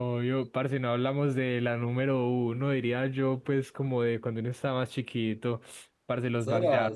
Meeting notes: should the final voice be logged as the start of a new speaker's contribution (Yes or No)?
Yes